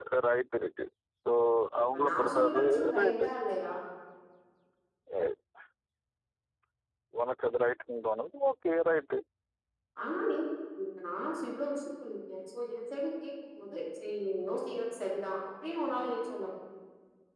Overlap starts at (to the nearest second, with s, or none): 2 s